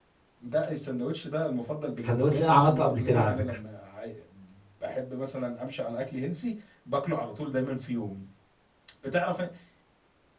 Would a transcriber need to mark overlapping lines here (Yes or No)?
Yes